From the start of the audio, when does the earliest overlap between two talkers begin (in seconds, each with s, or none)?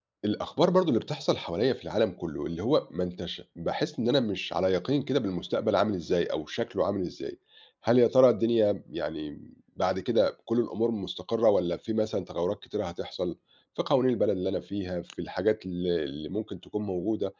none